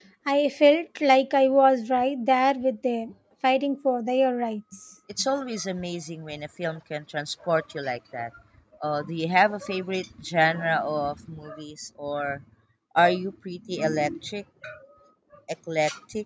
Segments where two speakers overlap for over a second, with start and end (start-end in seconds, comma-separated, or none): none